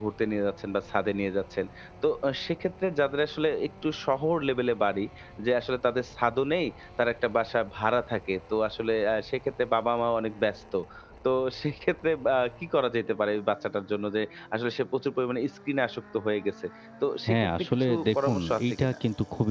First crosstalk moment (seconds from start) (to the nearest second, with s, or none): 17 s